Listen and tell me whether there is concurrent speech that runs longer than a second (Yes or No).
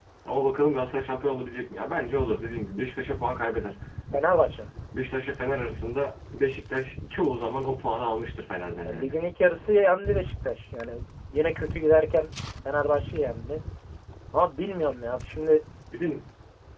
No